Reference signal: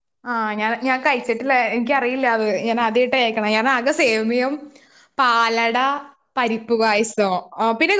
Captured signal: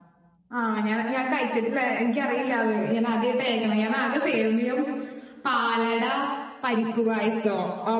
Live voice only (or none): none